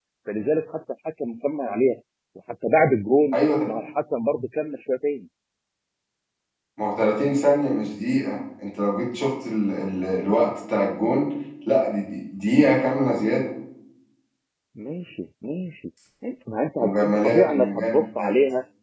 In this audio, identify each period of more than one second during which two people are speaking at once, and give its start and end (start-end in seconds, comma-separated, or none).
16.8-18.3